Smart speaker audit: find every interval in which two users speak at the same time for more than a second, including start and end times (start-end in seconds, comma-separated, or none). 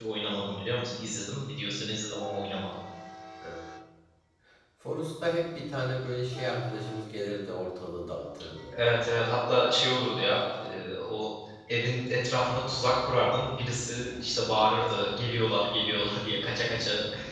none